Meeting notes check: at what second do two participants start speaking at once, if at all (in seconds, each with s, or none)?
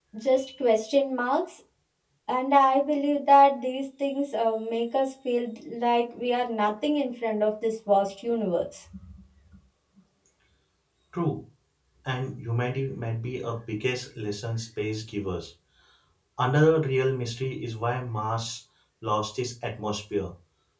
none